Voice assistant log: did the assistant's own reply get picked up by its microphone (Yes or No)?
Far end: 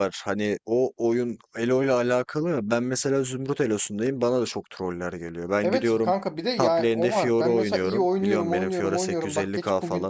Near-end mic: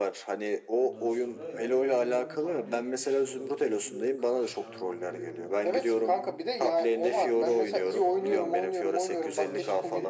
Yes